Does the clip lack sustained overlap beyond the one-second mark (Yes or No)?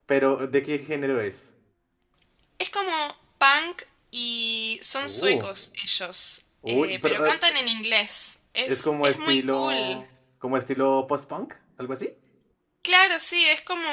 No